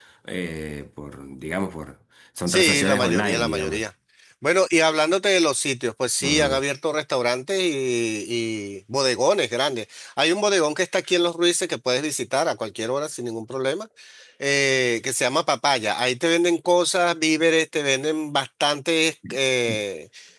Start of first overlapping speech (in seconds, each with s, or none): 2.5 s